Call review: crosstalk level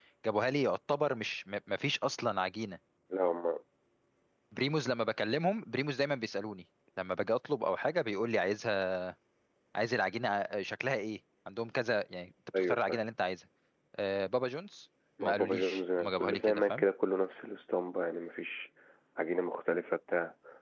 present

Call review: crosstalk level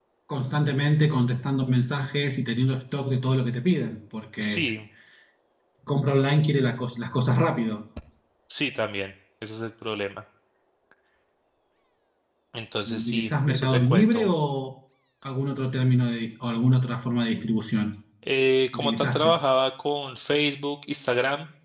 present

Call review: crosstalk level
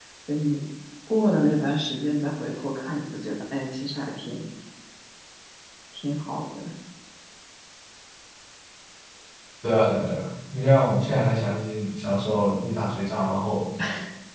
none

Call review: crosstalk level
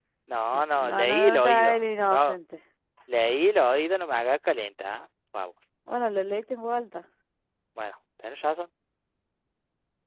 present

